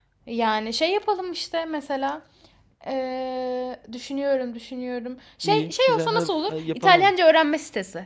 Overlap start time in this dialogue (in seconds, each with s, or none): 5.4 s